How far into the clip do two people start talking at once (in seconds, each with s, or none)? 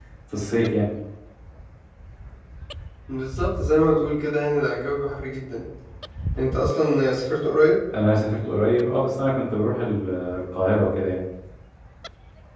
none